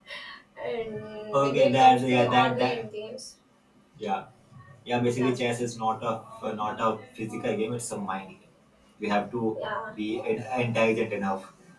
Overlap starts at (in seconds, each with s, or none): 1.4 s